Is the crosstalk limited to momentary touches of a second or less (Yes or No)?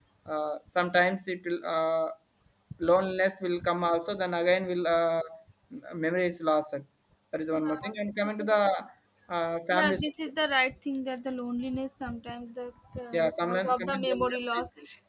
No